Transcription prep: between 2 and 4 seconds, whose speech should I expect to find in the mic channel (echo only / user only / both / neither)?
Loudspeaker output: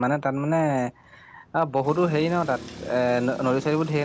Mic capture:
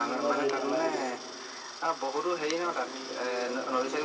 both